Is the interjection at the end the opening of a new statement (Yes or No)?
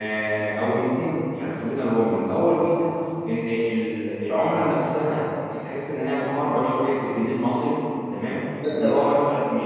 No